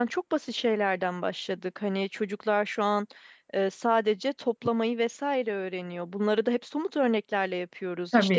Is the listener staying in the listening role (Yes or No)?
Yes